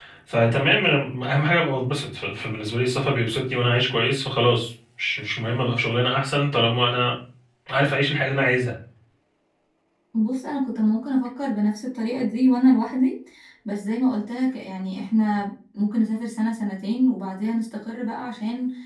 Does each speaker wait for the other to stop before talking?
Yes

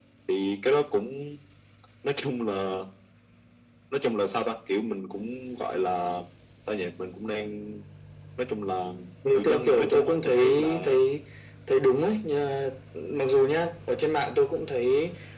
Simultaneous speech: Yes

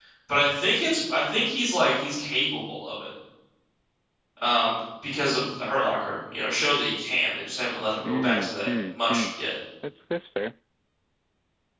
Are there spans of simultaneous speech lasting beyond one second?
Yes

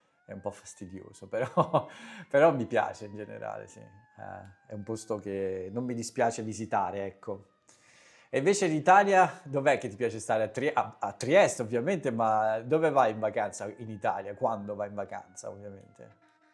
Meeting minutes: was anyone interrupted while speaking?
No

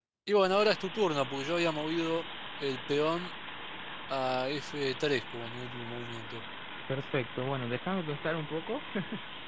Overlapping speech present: No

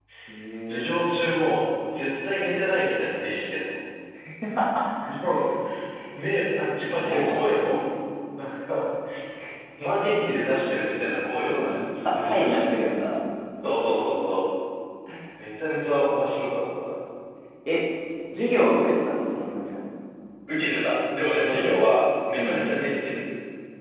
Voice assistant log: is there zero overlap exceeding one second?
No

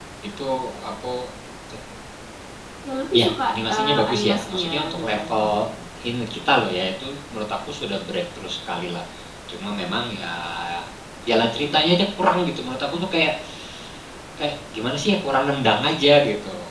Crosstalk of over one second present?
Yes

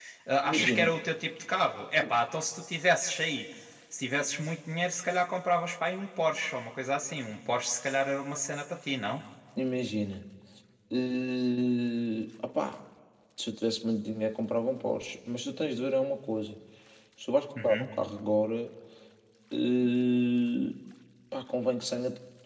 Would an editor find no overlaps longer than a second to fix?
Yes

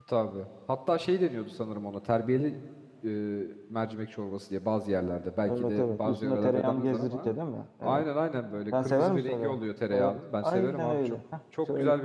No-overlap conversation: No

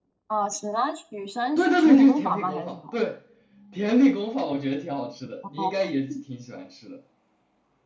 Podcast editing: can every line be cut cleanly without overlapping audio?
No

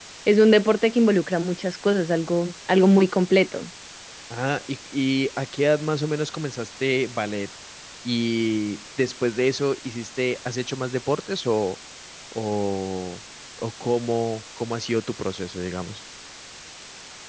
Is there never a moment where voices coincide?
Yes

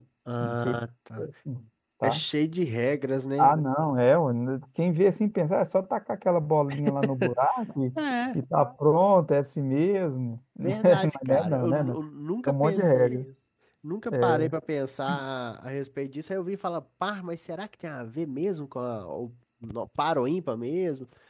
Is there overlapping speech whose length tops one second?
Yes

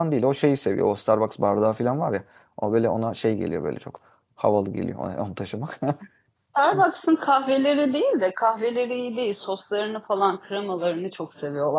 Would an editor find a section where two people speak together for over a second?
No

